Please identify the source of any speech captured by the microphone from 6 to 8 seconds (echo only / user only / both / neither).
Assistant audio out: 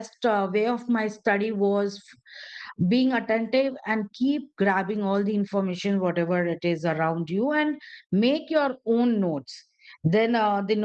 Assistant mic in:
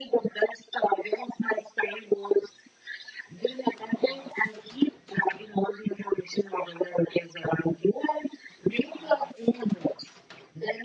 echo only